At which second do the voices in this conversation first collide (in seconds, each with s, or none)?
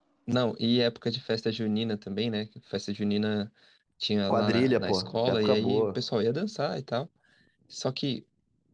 4.3 s